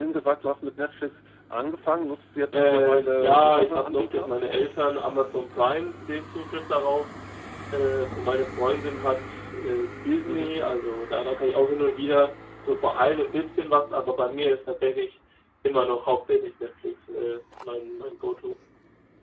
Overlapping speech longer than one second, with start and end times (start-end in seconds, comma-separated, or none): 2.5-4.3